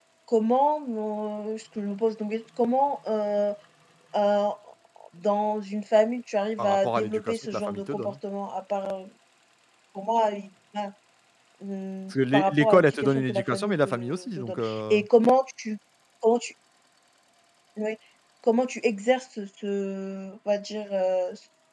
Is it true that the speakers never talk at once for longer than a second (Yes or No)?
No